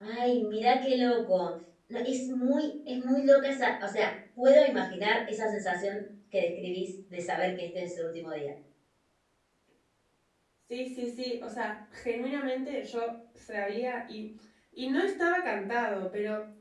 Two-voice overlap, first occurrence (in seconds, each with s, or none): none